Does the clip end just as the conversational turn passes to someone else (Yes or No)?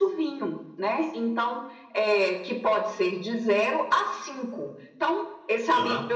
No